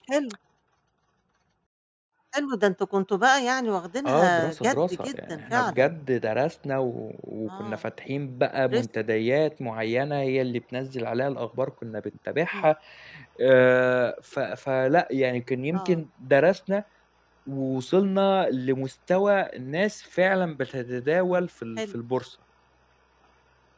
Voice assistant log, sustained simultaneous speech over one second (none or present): present